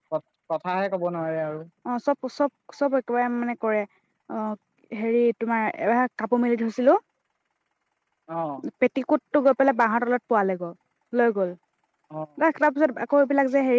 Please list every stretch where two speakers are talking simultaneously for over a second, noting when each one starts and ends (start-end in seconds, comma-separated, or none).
none